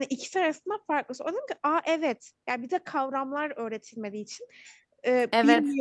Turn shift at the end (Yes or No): No